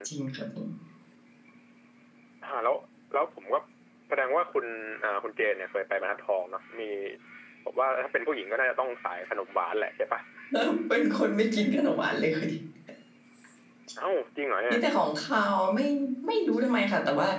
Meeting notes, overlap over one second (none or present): none